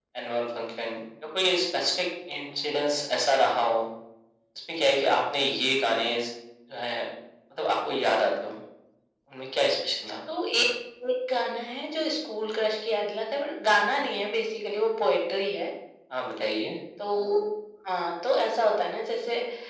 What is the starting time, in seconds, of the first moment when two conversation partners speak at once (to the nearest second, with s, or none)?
none